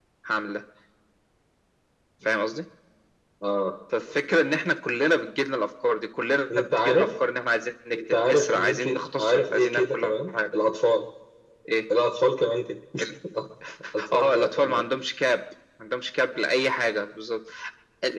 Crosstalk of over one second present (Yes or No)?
Yes